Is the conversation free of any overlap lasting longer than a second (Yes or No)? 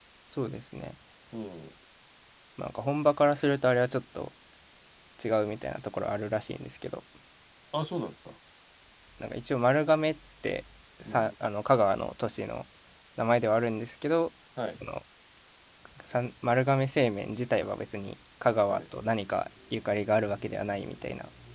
Yes